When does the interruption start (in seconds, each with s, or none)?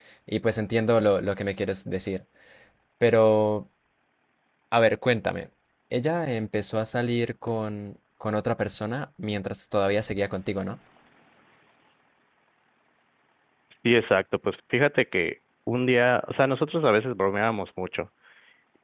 none